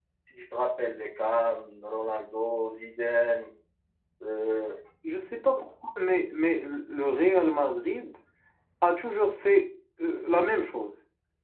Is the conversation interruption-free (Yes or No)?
Yes